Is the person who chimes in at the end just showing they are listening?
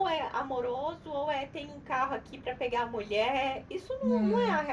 Yes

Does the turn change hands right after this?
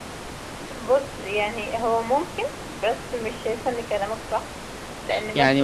Yes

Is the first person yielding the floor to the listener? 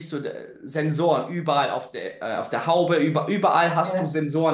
No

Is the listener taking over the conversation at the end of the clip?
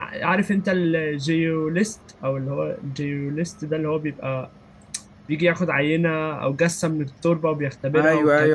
Yes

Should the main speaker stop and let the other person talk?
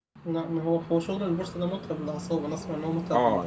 Yes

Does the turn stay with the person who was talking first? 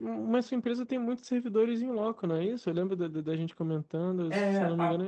No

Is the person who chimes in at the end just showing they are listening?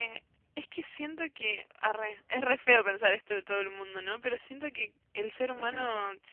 Yes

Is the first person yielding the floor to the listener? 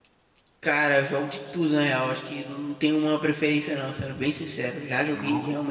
No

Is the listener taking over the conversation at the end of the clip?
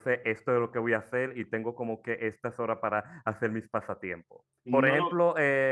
No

